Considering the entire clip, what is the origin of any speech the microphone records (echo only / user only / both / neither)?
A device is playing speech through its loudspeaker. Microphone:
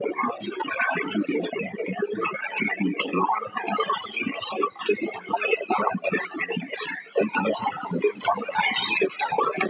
echo only